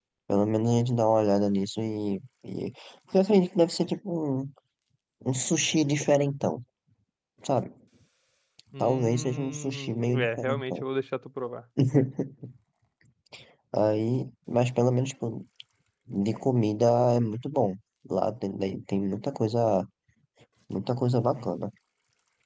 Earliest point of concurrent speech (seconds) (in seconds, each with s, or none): 8.8 s